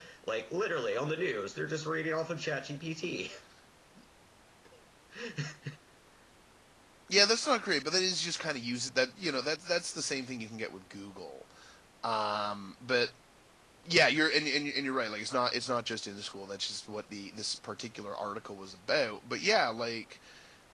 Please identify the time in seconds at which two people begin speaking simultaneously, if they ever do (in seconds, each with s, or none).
none